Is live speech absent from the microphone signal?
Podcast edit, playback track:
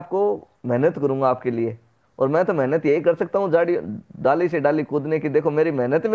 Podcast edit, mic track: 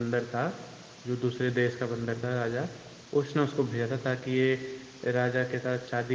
No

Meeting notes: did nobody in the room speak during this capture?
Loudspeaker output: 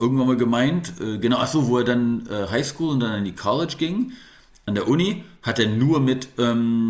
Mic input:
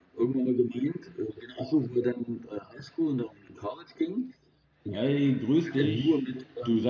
No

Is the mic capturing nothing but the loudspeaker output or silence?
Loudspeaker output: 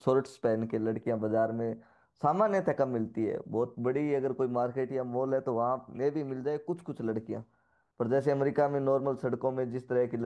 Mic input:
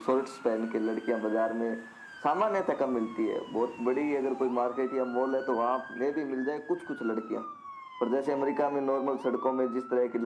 Yes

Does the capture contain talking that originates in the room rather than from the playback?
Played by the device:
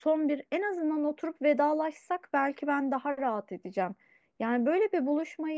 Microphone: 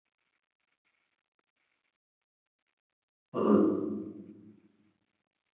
Yes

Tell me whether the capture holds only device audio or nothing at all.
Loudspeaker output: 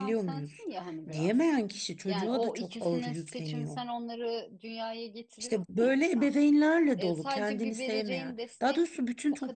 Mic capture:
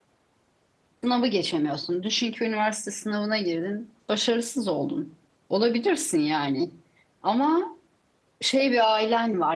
No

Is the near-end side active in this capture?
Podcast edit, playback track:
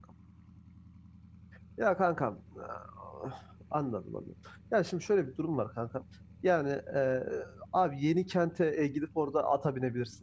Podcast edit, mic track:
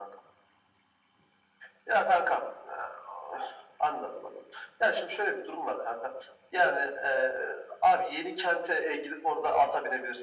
No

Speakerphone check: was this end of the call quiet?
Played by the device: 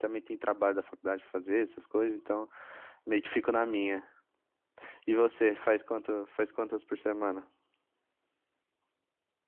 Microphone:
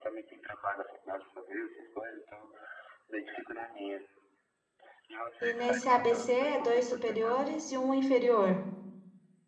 No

